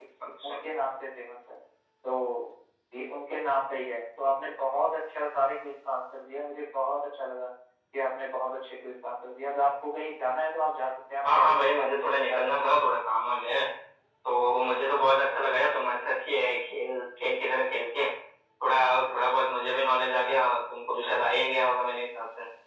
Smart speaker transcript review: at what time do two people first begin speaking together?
11.2 s

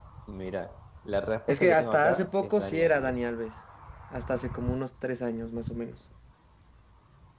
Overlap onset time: 1.5 s

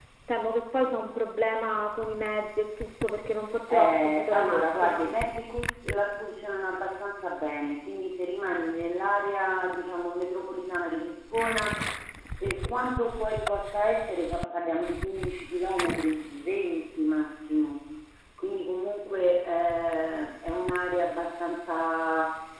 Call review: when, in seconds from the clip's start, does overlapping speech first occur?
3.7 s

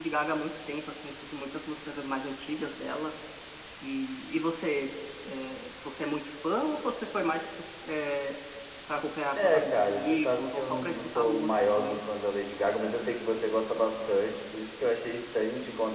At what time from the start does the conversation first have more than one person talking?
9.4 s

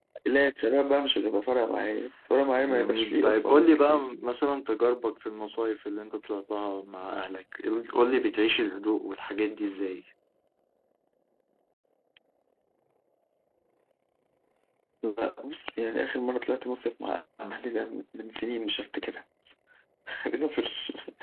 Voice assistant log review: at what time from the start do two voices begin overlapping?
2.6 s

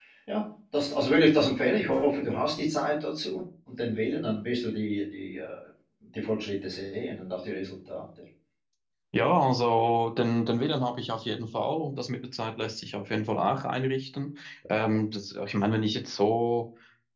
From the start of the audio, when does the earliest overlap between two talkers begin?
none

